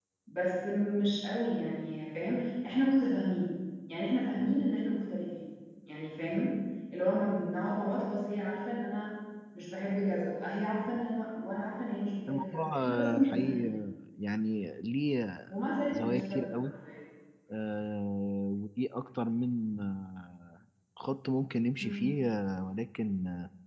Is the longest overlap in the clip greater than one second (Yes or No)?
Yes